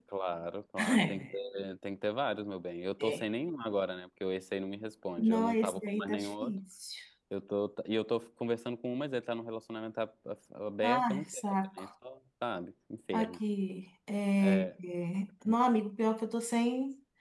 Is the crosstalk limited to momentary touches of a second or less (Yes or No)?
No